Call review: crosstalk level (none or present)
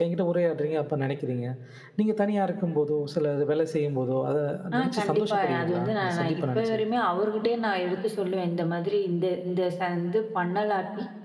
present